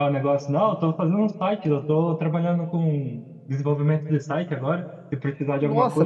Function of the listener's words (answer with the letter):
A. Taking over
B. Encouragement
A